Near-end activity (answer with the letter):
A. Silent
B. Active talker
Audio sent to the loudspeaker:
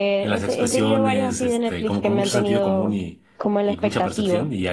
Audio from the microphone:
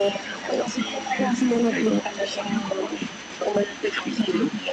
A